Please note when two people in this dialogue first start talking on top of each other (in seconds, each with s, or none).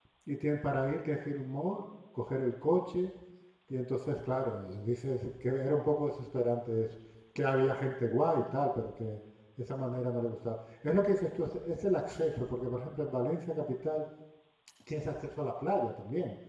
none